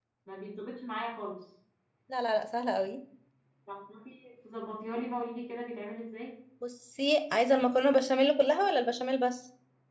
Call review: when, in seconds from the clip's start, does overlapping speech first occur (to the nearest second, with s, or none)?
none